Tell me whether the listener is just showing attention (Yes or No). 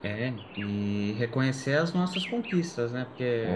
Yes